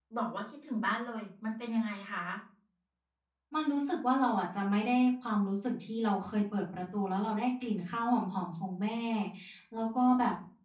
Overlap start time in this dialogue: none

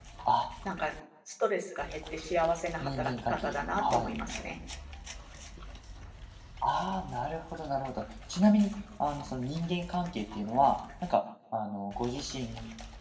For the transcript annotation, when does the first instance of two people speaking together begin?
3 s

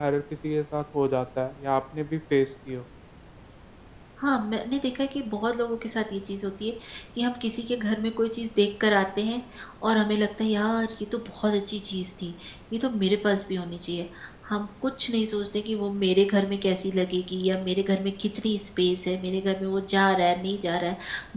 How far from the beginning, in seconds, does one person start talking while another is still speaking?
none

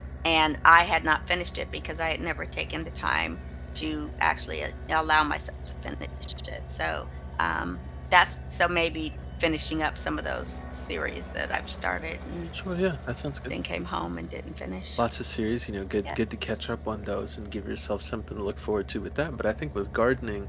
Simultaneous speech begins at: none

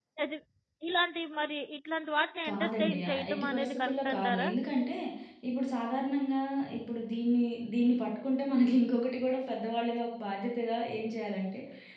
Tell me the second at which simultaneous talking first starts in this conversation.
2 s

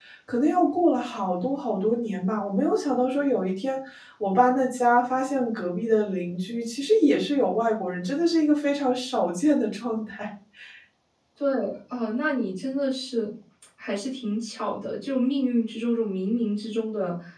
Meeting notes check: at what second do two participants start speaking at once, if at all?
none

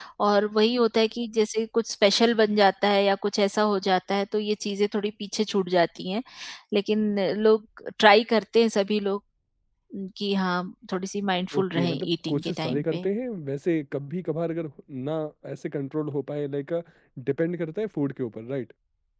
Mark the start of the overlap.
12 s

